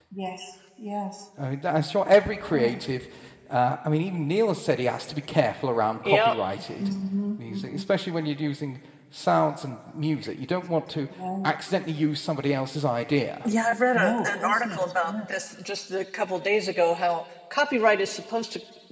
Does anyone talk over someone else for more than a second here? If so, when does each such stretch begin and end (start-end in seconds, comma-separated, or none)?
13.9-15.2